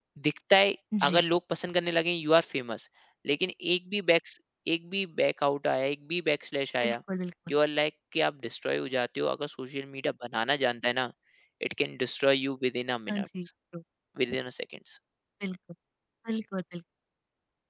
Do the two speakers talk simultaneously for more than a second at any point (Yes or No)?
No